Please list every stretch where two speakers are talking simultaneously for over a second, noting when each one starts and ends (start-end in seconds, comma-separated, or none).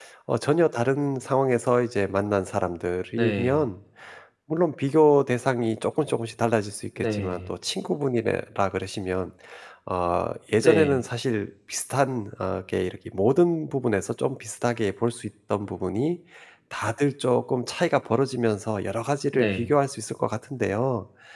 none